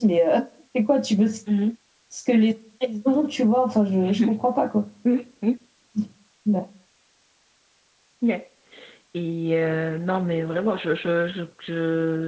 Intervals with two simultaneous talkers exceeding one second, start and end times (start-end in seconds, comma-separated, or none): none